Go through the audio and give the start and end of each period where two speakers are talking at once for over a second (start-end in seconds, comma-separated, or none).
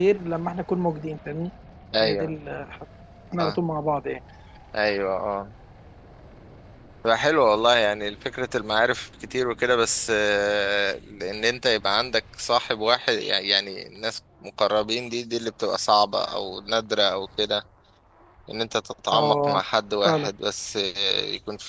none